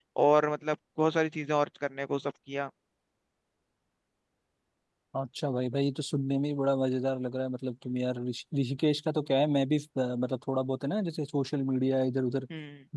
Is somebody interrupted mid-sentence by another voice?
No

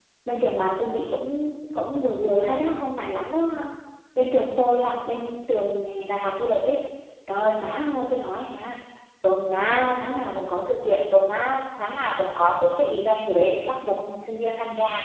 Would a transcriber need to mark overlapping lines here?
No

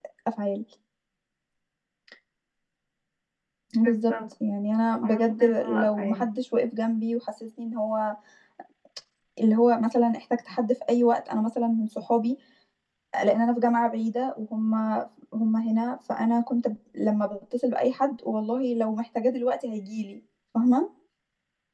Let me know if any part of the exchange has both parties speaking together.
Yes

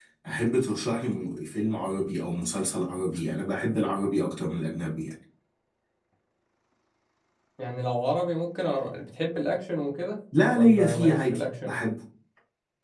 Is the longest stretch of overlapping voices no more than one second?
No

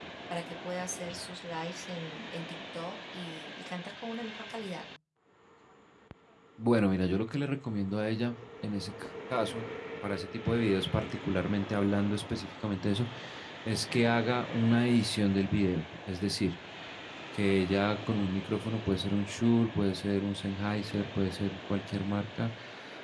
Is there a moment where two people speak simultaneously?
No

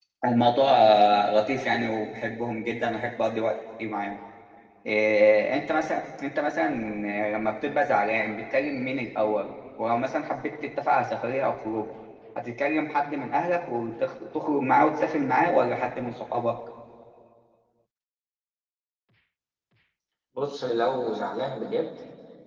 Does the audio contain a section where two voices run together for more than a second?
No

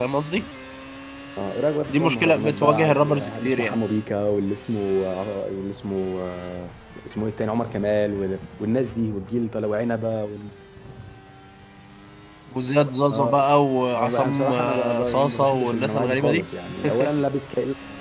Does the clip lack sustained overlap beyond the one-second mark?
No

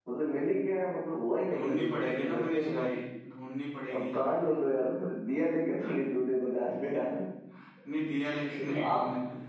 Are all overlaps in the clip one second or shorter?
No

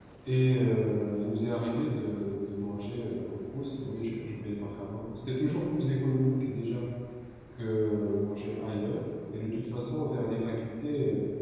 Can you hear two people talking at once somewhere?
No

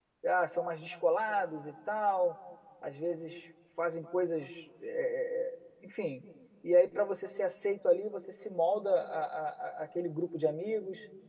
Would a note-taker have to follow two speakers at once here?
No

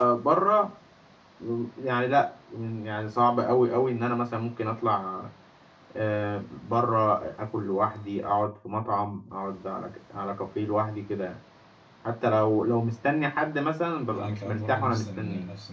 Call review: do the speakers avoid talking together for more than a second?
No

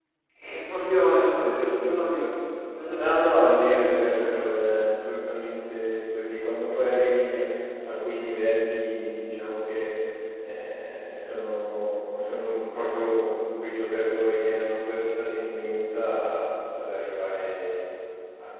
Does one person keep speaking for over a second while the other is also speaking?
Yes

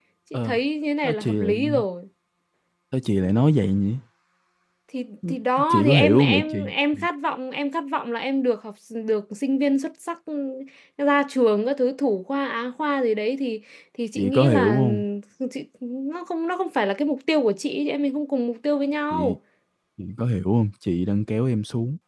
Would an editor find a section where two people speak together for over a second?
Yes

